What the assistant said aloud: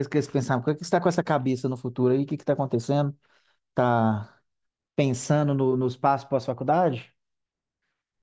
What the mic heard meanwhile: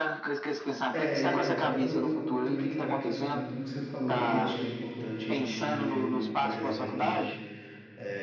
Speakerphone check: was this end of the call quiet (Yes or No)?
No